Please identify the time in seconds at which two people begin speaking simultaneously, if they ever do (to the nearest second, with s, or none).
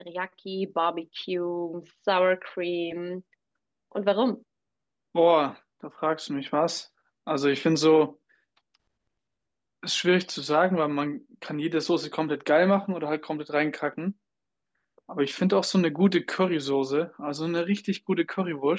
none